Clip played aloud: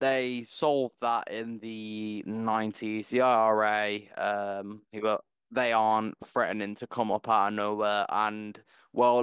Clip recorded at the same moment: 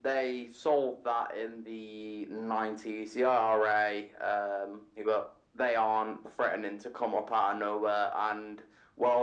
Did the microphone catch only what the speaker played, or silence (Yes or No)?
Yes